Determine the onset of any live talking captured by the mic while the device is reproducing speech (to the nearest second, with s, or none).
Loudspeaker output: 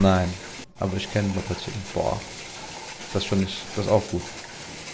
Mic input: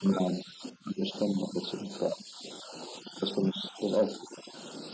none